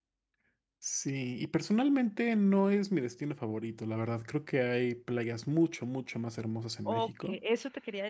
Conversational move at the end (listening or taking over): taking over